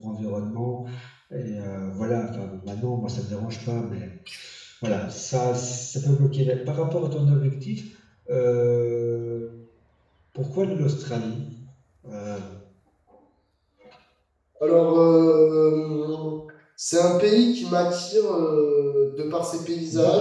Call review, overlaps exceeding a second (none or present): none